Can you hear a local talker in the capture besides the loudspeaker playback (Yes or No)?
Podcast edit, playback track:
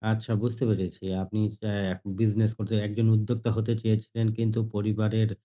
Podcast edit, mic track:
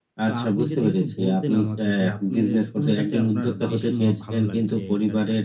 Yes